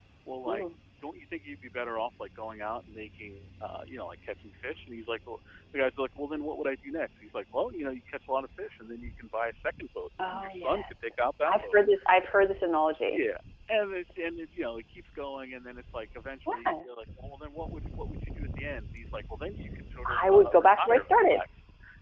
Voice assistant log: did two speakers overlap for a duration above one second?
Yes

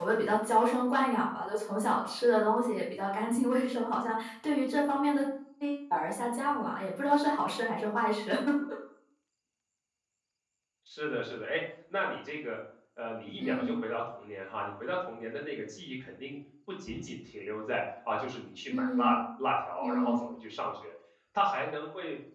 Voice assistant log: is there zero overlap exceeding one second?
Yes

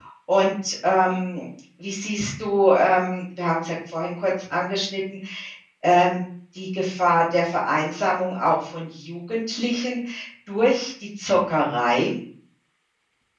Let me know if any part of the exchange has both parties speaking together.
No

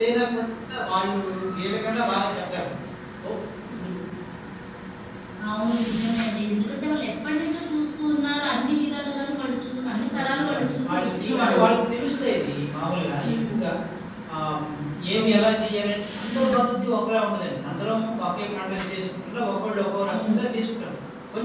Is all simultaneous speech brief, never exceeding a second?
No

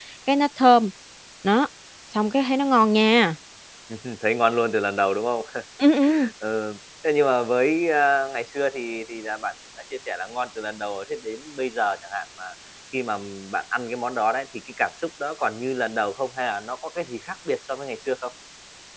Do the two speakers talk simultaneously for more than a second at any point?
No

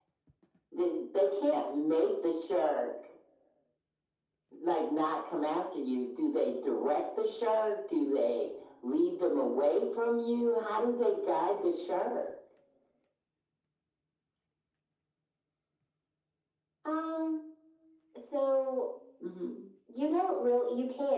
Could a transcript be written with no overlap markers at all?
Yes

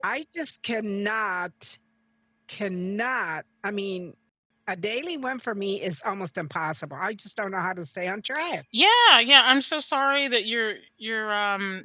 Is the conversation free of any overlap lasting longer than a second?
Yes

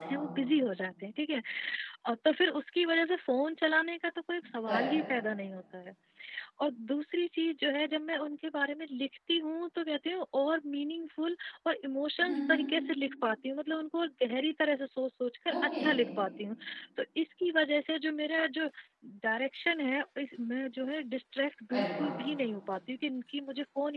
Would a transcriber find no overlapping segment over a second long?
Yes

